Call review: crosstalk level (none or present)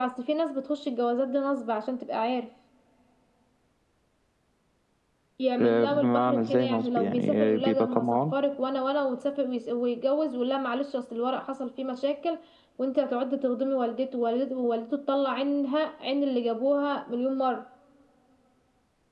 present